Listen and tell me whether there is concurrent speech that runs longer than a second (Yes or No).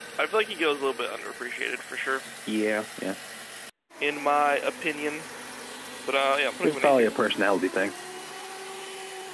No